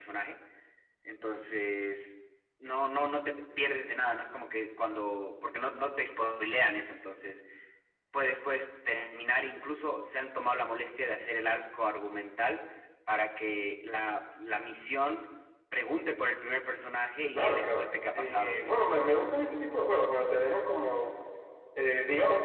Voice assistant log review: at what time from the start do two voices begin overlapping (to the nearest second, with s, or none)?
17 s